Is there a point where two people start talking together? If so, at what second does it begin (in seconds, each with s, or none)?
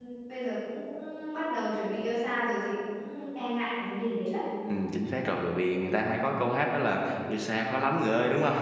none